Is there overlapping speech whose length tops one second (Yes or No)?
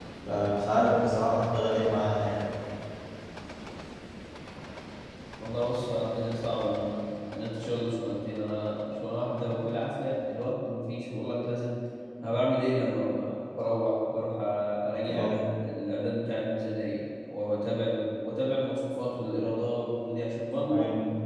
No